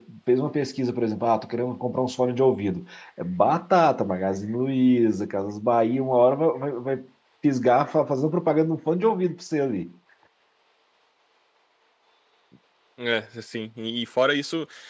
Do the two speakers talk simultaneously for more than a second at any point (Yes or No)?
No